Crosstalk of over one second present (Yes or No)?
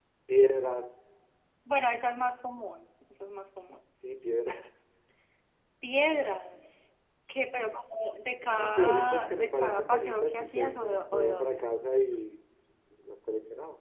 Yes